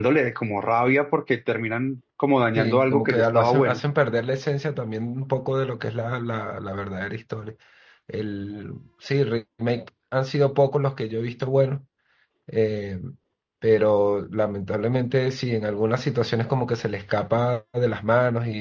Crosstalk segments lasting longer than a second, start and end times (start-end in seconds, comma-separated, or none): 2.5-3.8